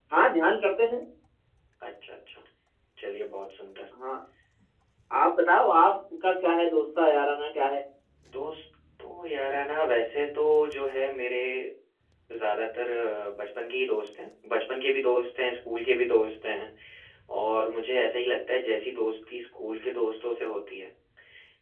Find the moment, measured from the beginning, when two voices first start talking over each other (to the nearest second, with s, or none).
none